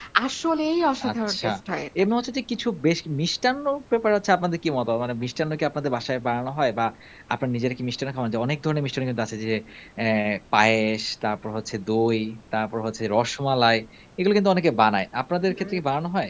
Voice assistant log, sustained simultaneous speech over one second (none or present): none